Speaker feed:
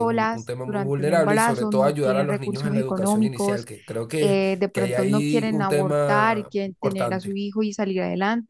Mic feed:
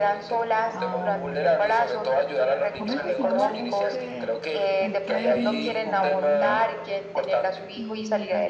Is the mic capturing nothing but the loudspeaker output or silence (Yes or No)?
No